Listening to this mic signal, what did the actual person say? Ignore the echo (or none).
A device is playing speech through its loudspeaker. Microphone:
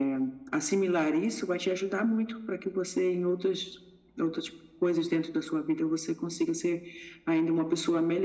none